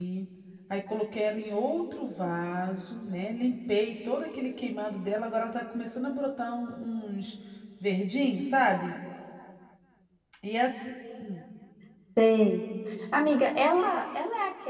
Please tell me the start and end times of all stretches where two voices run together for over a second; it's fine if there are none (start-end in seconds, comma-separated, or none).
none